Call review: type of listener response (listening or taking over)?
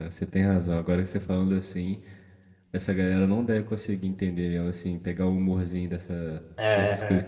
taking over